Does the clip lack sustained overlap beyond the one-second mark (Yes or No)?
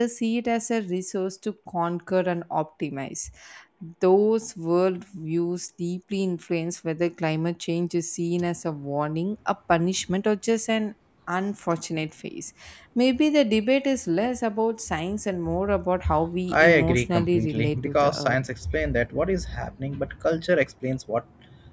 No